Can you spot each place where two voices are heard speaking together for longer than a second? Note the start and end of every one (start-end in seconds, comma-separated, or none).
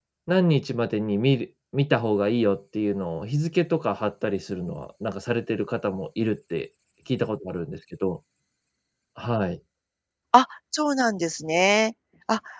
none